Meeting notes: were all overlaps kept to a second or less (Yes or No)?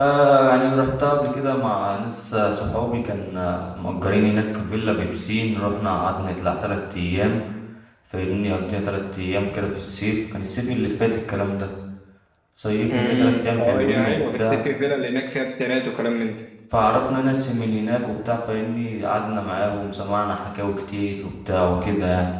No